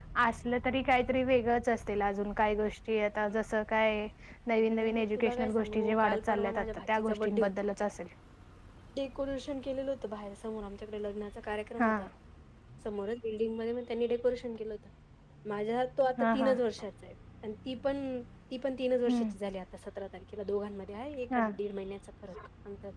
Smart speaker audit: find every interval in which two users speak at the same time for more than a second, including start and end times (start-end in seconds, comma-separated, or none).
4.6-7.5